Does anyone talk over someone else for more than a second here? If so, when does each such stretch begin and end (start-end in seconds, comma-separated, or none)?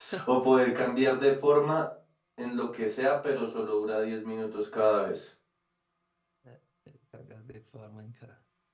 none